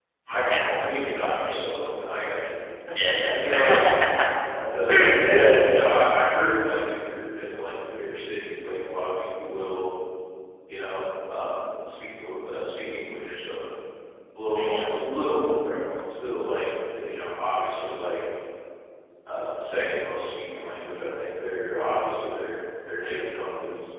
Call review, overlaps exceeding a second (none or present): present